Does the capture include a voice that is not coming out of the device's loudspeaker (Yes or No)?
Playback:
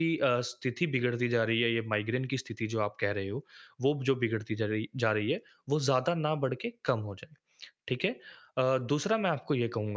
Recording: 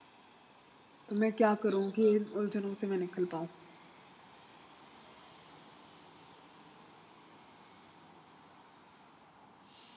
Yes